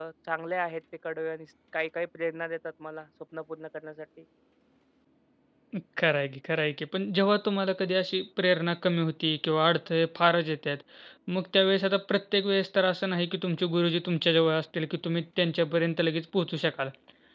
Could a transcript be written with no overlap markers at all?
Yes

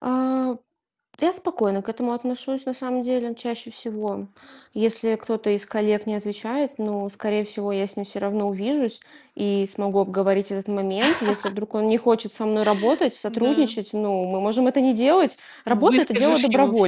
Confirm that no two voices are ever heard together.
No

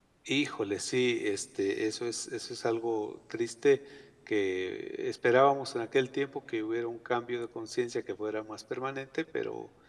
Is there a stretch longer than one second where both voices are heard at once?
No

